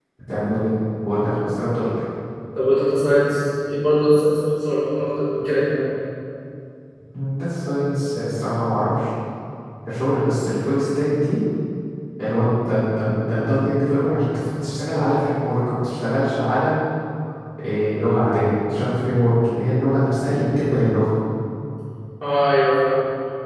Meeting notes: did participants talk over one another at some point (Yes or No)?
No